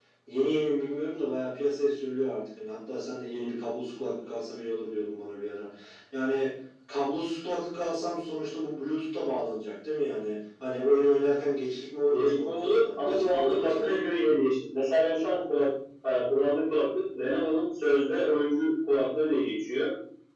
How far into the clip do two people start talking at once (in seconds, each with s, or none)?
12.1 s